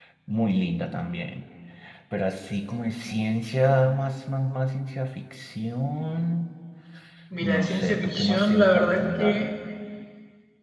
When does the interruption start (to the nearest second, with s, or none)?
7 s